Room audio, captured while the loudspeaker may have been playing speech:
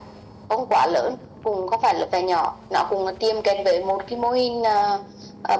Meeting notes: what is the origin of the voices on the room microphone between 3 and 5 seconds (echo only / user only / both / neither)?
echo only